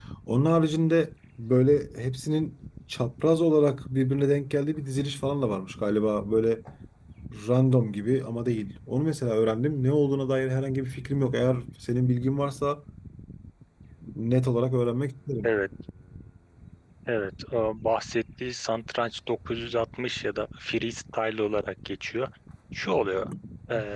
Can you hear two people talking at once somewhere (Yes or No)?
No